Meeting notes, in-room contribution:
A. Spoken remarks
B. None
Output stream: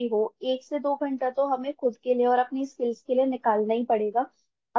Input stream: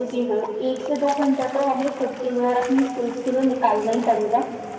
B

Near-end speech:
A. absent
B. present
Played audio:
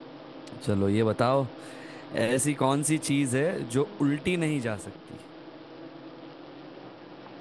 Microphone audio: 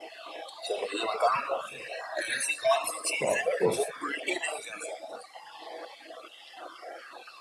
B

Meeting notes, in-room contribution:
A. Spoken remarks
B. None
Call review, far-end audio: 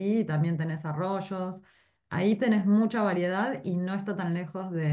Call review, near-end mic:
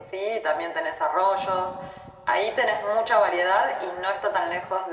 B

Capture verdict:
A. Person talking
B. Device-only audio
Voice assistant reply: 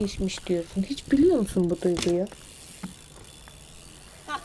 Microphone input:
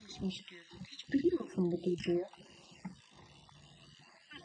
B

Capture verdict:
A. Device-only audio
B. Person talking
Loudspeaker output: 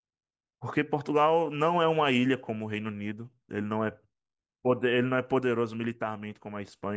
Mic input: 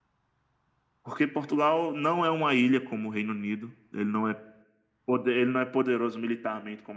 A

